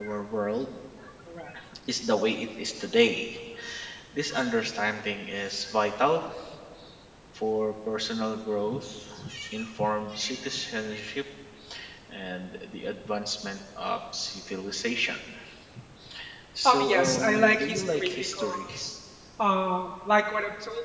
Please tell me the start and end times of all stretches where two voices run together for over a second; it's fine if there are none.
16.6-18.7

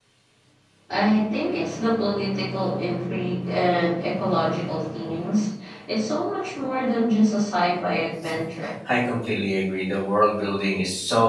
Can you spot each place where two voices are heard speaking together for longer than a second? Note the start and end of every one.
none

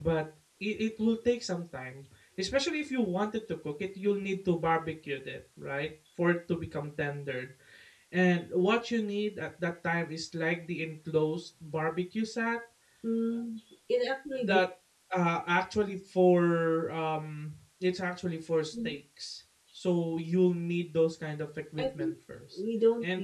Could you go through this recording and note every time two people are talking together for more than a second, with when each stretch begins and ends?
none

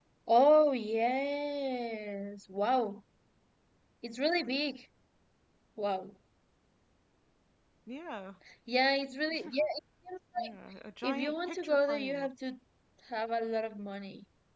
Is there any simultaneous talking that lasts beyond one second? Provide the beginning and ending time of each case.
11.0-12.3

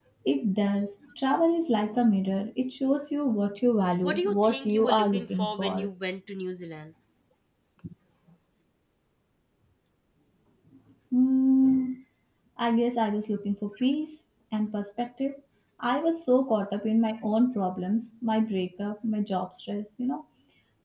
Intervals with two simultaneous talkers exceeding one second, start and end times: 4.0-5.9

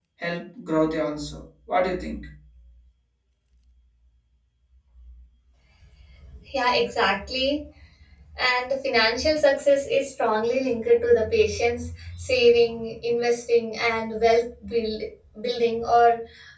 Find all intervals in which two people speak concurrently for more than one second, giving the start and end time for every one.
none

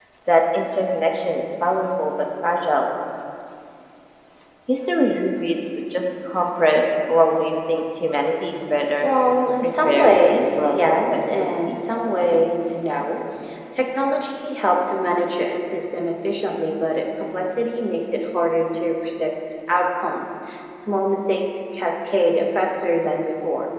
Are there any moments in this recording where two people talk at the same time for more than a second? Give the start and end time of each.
9.6-11.8

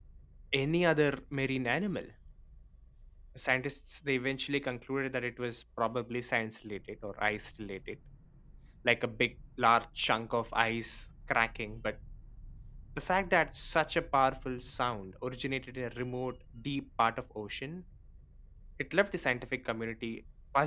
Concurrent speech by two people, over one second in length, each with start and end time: none

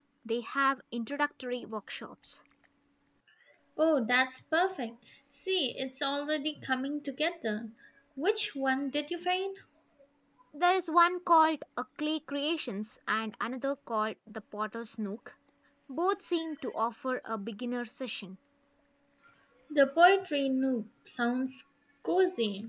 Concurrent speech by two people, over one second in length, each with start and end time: none

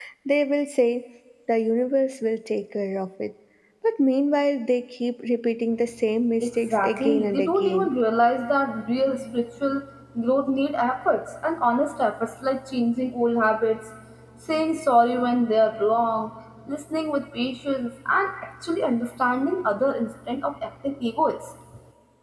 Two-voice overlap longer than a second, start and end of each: 6.4-7.9

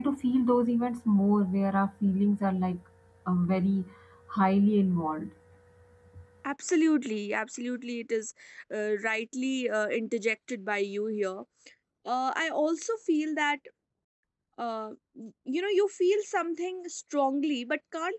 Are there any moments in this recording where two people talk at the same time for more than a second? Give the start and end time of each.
none

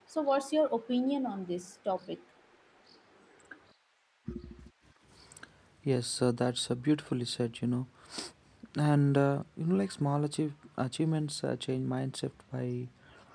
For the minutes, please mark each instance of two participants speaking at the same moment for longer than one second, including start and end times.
none

